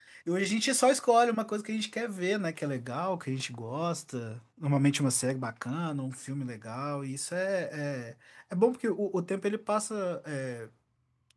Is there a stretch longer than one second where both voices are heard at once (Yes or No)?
No